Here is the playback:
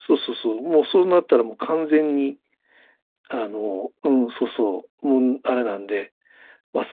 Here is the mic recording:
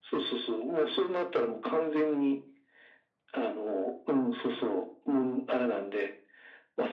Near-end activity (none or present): none